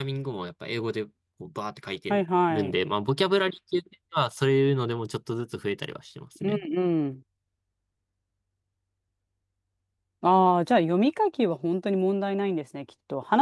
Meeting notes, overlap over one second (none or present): none